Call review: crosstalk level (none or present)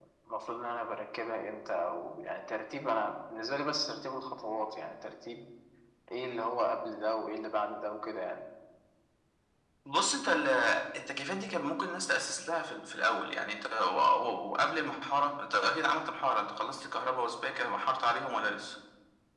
none